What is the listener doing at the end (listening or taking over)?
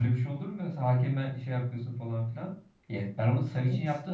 listening